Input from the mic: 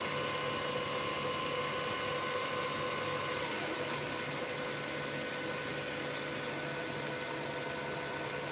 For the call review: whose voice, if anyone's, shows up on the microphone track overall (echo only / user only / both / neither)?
neither